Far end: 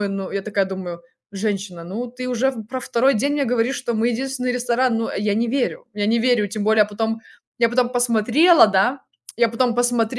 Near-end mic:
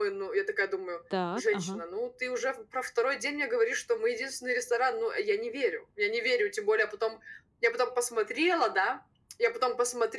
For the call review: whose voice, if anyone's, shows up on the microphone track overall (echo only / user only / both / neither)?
both